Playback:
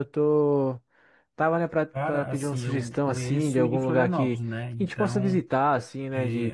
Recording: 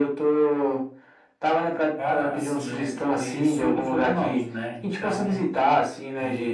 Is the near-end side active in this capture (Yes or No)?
No